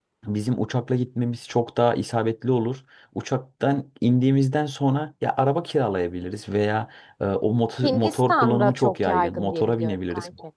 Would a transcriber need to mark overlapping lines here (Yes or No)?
Yes